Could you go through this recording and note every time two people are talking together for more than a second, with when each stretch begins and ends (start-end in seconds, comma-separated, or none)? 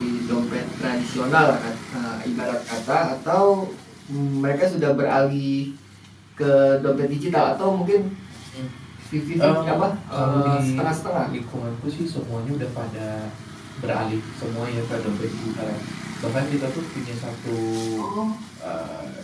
9.4-10.8